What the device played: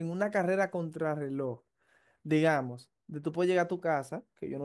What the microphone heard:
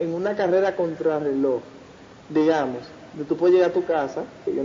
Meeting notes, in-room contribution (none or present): none